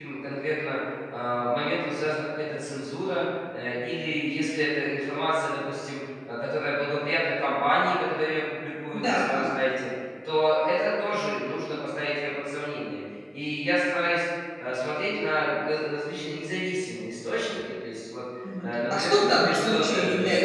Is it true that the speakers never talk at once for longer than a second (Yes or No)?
No